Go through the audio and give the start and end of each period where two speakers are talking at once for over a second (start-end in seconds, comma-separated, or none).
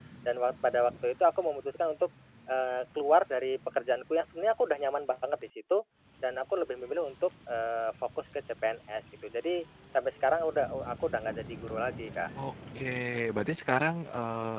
none